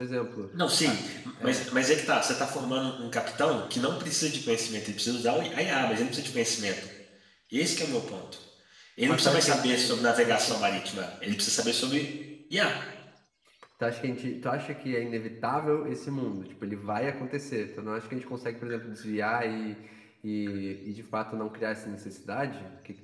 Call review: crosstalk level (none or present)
present